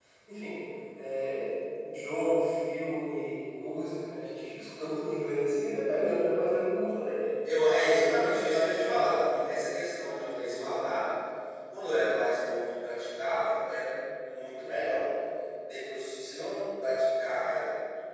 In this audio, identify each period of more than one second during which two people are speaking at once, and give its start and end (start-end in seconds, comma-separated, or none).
7.7-9.3